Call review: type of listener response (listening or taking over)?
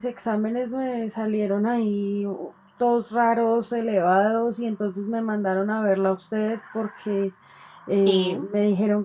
listening